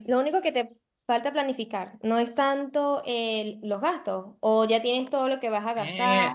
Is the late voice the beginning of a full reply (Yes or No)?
Yes